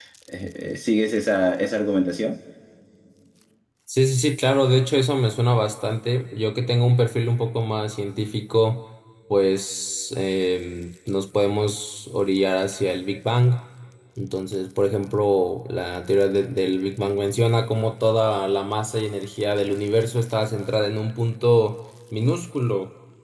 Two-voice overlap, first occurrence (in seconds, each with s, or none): none